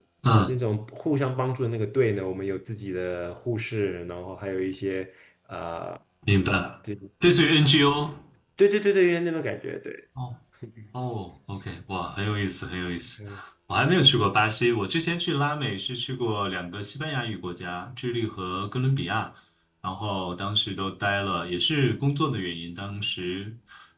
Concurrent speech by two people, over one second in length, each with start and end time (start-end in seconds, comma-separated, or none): none